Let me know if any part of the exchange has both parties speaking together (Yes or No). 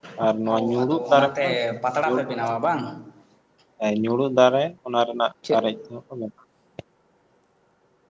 Yes